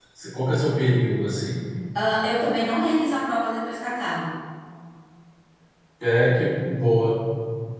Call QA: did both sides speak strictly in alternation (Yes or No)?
Yes